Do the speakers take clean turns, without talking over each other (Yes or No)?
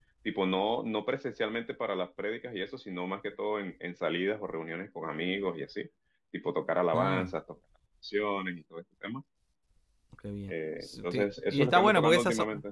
No